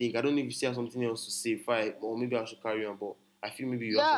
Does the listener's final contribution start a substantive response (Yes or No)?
Yes